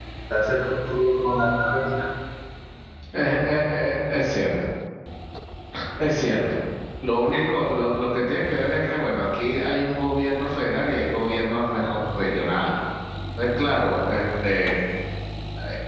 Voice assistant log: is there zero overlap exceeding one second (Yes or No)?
Yes